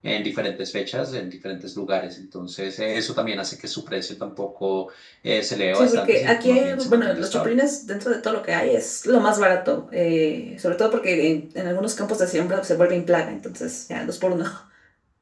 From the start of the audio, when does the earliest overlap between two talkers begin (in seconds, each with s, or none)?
5.7 s